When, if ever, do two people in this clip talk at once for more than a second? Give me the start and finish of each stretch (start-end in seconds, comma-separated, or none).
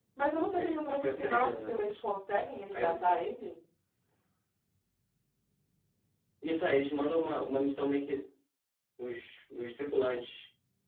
0.5-1.8